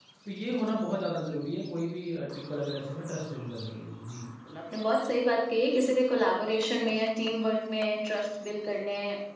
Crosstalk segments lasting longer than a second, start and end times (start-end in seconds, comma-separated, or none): none